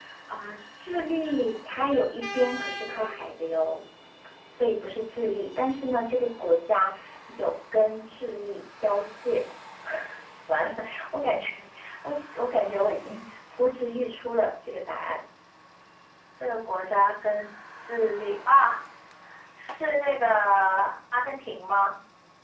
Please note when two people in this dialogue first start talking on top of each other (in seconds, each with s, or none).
none